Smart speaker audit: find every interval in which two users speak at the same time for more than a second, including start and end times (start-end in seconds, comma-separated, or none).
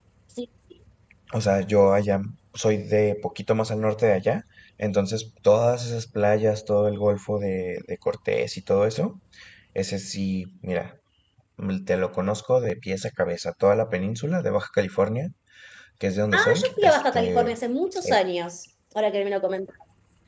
16.3-17.5